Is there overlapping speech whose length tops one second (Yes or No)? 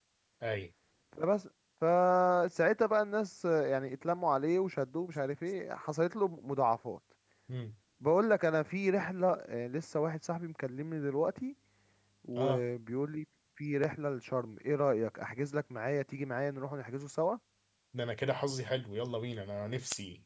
No